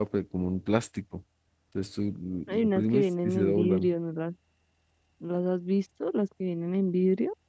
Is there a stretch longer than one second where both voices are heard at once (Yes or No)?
Yes